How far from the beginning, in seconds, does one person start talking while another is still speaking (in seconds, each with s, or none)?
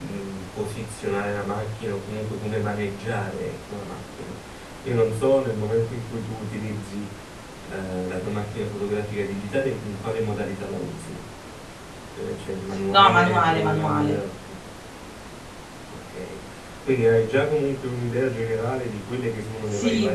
12.9 s